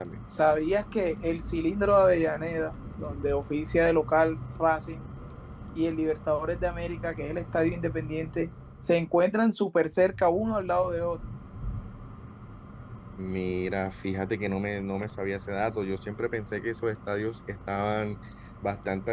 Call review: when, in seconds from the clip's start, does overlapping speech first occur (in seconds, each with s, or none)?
none